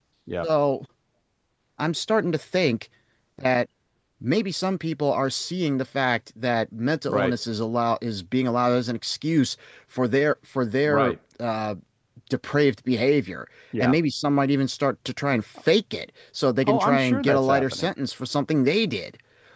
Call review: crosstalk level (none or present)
present